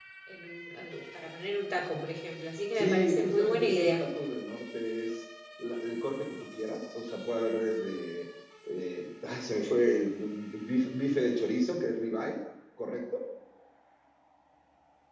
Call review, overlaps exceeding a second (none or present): present